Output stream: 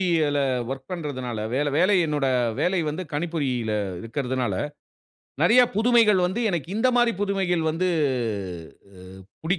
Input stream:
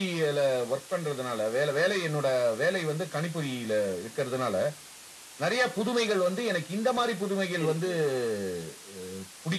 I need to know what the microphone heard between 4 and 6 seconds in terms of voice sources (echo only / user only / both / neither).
echo only